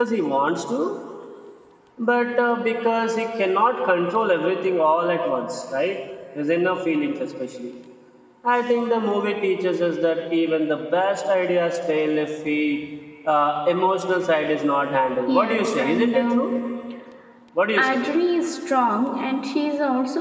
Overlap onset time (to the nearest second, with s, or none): 15 s